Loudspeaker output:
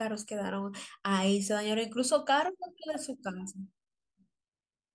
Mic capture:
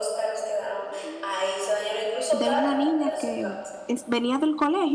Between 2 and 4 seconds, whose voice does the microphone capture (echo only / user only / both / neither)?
both